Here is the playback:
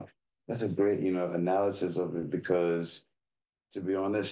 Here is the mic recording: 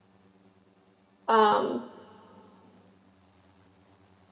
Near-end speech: present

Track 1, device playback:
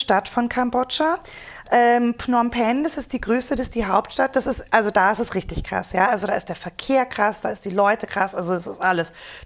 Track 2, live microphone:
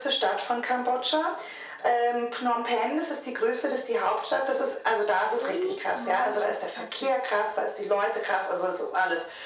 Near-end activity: present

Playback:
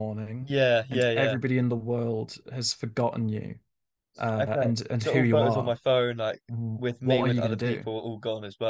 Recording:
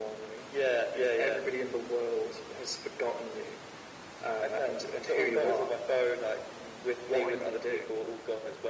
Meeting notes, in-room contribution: none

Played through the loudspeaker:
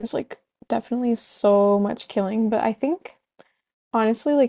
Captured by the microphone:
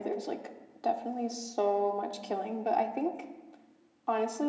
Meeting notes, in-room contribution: none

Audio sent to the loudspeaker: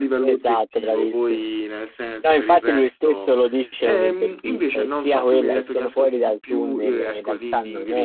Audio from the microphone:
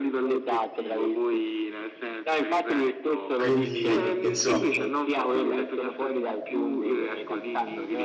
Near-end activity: present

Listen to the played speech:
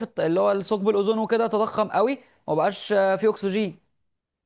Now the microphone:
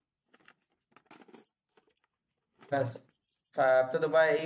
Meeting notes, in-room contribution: present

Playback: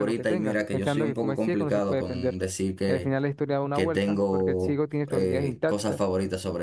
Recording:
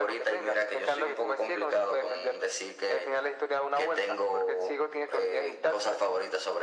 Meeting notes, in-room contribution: none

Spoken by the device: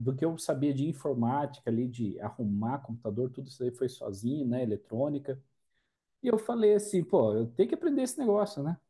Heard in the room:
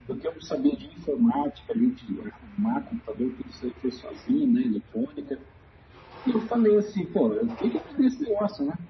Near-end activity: none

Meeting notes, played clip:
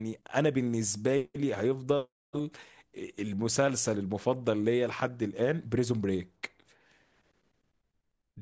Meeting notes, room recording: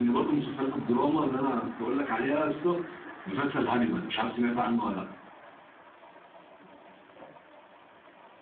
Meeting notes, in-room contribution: present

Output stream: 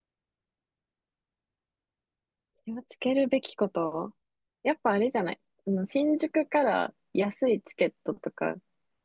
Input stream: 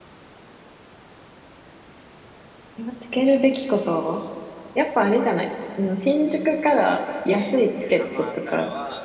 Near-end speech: present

